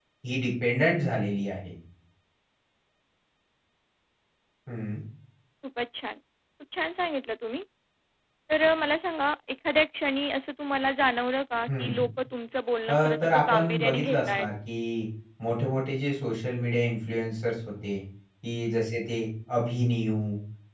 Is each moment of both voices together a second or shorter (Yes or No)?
No